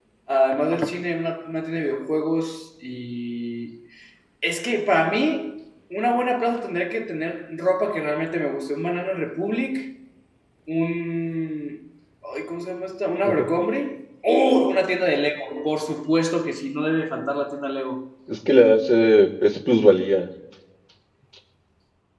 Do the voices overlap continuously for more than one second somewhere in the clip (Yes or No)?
No